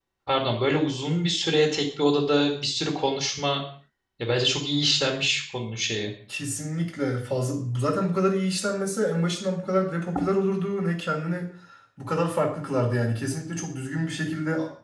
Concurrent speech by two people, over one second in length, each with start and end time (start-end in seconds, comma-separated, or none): none